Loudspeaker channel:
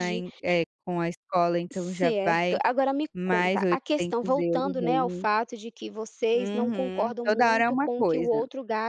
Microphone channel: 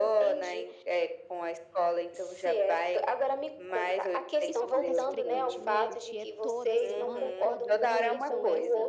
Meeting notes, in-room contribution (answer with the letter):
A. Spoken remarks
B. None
A